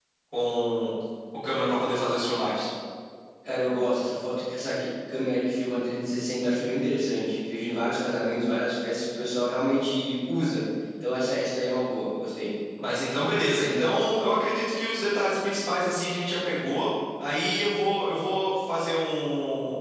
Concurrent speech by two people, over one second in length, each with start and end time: none

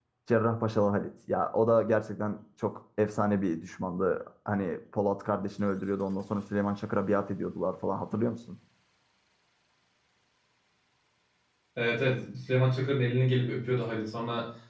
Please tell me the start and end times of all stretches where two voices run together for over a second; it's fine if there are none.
none

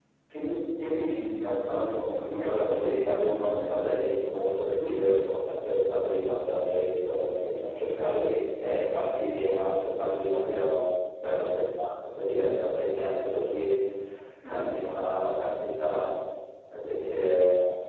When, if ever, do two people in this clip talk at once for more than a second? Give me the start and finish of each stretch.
2.4-3.8

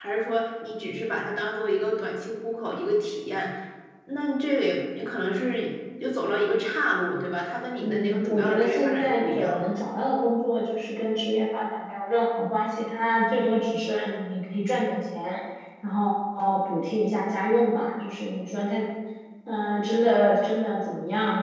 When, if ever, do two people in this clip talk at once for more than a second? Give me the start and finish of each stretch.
7.8-9.7

